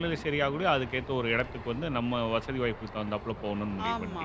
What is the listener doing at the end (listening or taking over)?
taking over